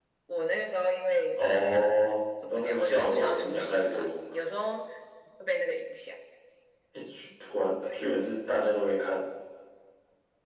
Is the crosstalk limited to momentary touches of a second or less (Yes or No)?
No